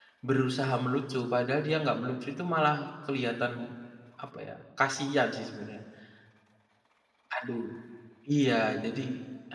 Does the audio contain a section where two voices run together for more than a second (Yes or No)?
No